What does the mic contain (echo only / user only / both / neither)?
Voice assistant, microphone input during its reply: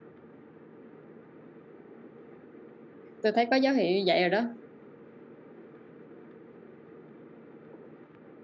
user only